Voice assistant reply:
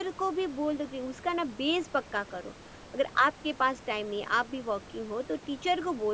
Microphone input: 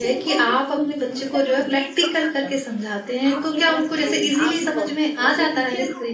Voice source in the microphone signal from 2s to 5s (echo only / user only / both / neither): both